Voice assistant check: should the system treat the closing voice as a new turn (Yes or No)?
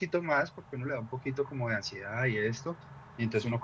No